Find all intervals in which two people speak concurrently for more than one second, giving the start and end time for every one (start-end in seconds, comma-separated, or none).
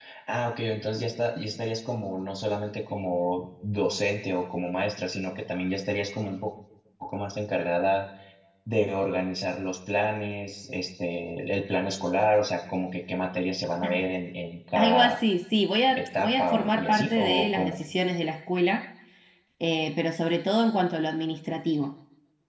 15.9-17.8